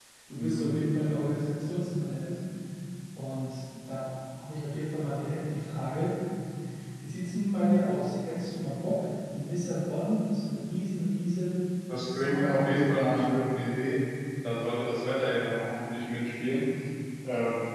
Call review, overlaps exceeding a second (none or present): present